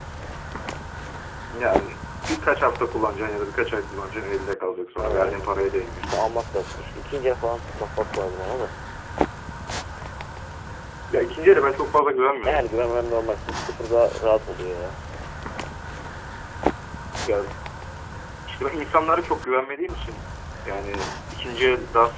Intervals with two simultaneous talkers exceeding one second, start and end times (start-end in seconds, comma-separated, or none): none